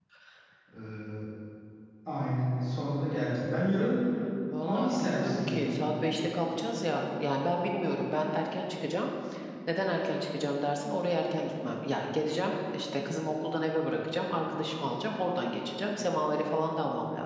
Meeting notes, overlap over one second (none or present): present